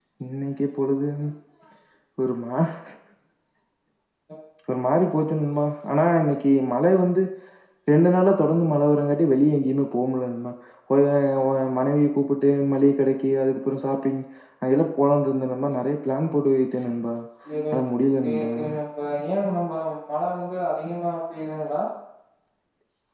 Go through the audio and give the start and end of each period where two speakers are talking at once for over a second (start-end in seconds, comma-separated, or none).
none